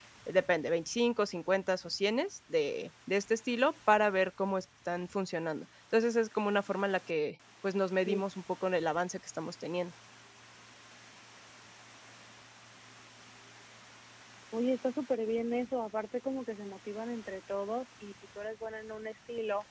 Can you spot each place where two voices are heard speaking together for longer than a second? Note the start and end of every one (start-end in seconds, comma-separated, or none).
none